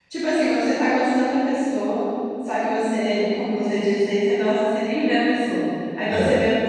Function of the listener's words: listening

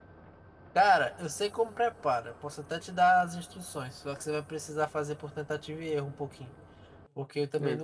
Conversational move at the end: listening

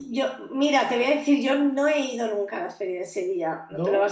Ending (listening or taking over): listening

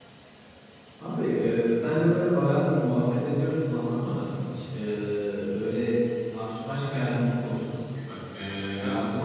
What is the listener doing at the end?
listening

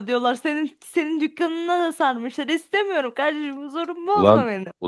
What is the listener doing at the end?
taking over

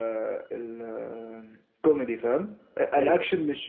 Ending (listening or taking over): listening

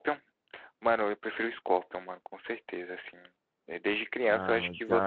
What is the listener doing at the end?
taking over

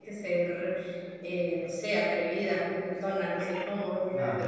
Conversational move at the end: listening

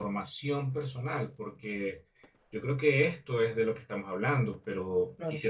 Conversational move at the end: taking over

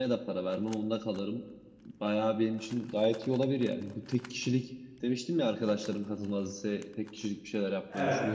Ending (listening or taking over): listening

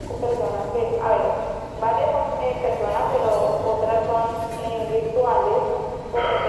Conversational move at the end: listening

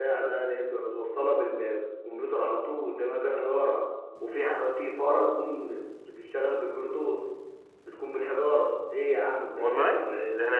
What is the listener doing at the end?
taking over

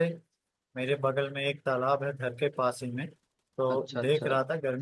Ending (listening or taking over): listening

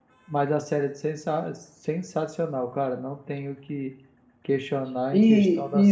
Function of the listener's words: taking over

